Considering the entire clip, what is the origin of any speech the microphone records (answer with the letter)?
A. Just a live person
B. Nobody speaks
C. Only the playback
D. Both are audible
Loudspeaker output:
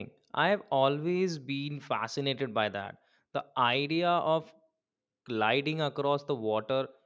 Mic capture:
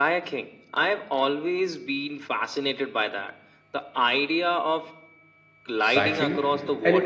D